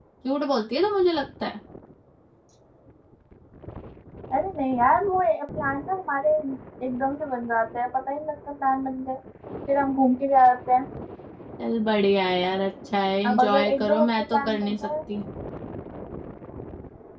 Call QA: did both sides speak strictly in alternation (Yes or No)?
No